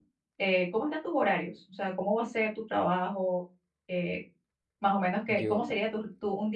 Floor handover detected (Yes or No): No